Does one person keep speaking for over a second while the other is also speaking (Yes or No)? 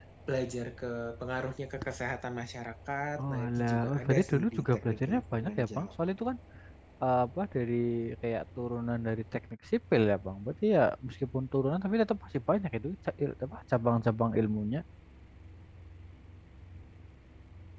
Yes